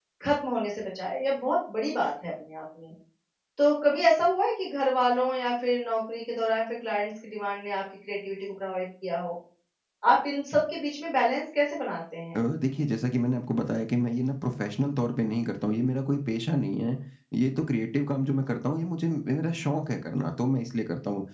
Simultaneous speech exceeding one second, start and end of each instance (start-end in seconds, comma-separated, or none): none